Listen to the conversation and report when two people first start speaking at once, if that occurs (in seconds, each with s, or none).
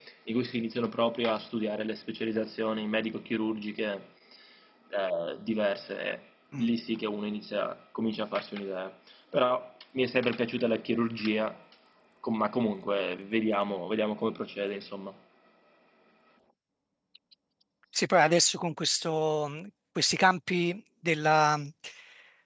none